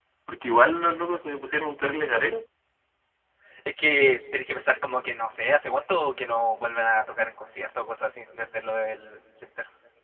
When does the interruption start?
none

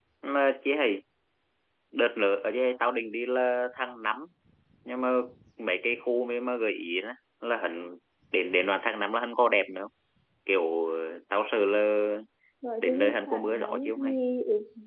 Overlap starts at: 12.8 s

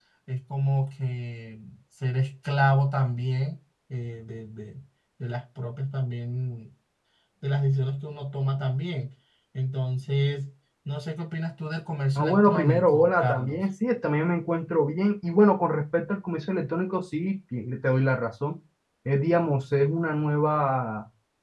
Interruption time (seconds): 12.2 s

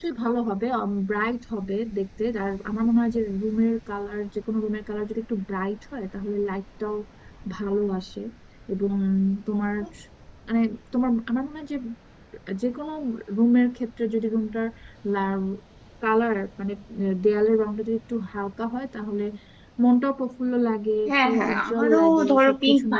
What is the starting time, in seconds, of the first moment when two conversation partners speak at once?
21.1 s

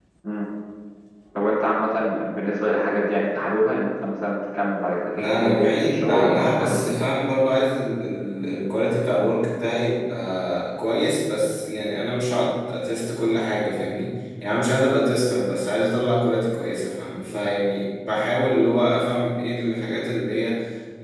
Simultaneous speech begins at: 5.2 s

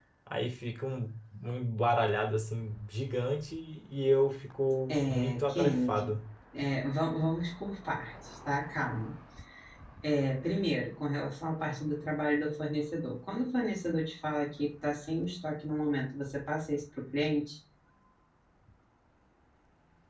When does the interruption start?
4.9 s

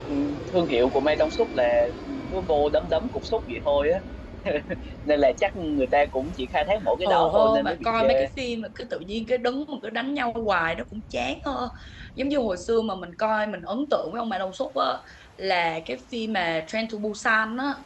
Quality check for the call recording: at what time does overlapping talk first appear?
7.0 s

